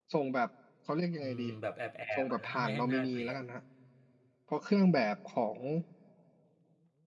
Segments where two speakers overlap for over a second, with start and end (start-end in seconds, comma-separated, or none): 2.1-3.4